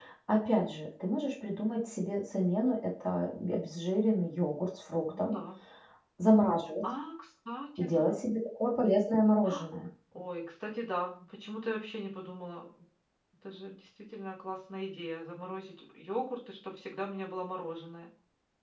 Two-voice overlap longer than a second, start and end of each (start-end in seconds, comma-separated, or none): none